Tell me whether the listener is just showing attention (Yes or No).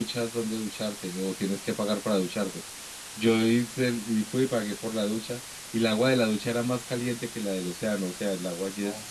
Yes